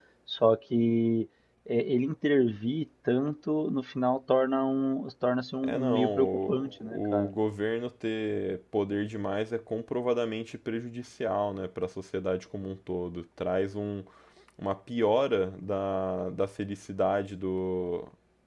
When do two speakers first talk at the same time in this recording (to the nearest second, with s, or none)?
6 s